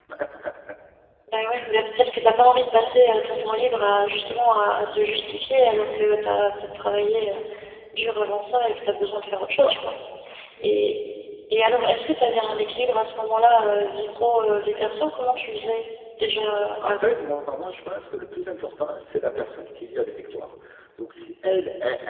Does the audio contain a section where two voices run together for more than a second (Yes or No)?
No